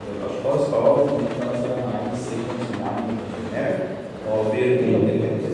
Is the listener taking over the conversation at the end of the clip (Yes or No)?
No